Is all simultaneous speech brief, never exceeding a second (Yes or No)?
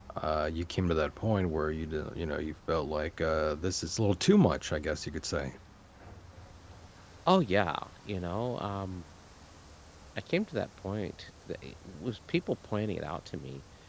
Yes